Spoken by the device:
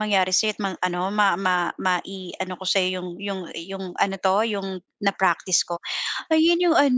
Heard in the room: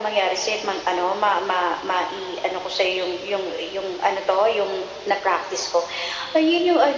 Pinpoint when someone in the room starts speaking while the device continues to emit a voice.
none

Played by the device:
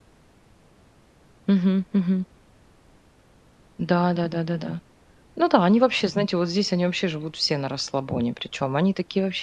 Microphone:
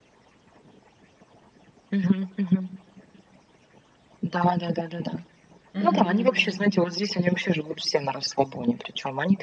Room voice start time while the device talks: 5.7 s

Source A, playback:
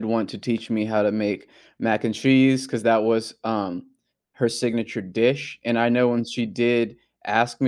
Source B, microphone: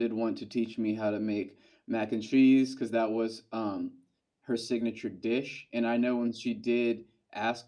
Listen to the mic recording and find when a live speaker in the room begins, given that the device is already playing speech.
none

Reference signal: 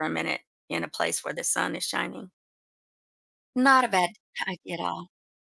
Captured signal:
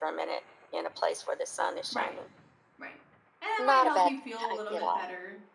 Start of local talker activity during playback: 1.9 s

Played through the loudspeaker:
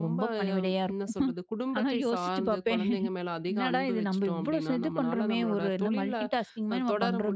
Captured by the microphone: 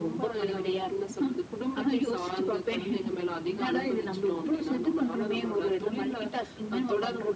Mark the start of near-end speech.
none

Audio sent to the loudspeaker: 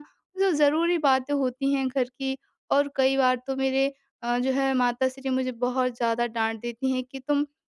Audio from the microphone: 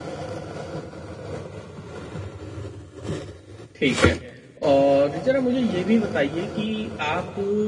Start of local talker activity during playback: 3.8 s

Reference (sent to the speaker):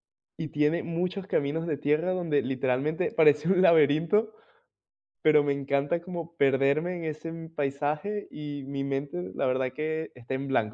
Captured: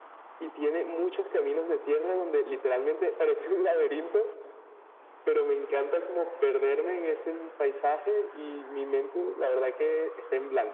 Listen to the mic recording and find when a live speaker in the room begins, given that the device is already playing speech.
none

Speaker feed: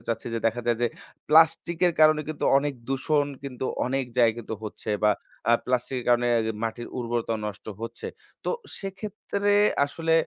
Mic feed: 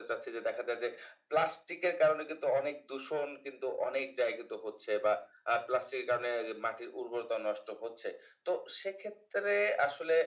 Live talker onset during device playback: none

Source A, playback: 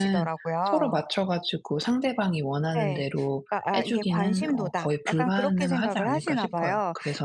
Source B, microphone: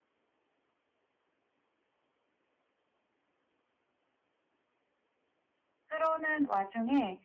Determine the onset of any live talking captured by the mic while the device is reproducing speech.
5.9 s

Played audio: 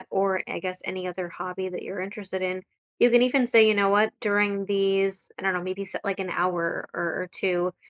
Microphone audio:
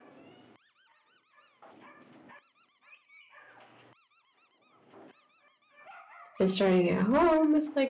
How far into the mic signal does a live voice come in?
6.4 s

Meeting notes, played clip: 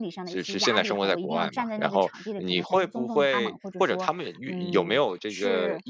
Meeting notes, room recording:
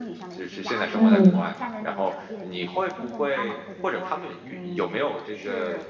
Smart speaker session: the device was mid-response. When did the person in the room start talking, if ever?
0.9 s

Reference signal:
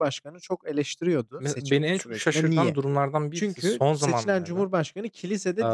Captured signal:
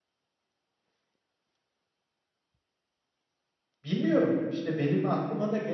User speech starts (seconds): 3.8 s

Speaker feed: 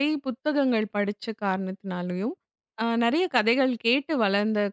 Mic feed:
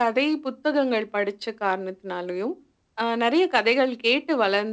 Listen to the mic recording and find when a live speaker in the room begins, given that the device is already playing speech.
none

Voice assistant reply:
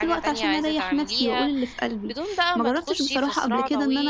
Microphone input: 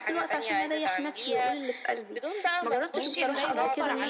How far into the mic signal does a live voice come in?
2.9 s

